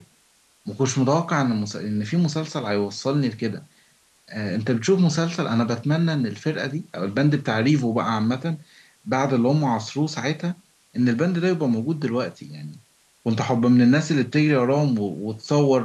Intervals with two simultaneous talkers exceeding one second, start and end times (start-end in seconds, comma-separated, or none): none